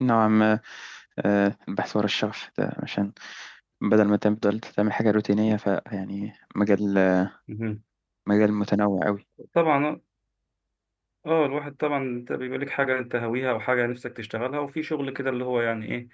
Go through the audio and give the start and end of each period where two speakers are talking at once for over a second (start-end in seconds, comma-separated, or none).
none